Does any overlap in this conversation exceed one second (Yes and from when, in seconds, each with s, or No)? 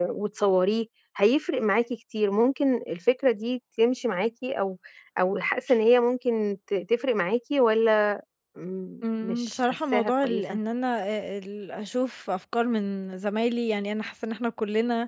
Yes, from 9.0 s